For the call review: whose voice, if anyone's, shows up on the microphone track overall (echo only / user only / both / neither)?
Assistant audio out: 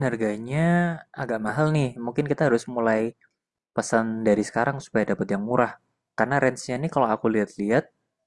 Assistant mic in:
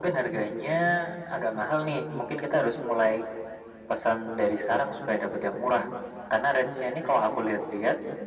echo only